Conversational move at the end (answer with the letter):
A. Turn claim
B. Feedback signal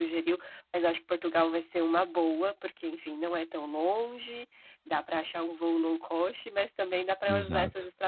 B